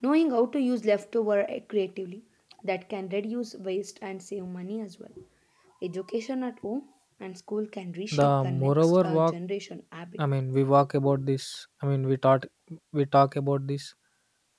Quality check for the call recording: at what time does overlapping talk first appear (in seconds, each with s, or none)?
8.1 s